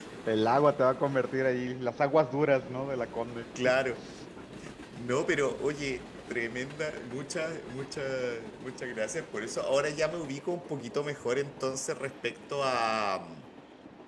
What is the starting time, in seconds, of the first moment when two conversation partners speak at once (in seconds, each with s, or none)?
none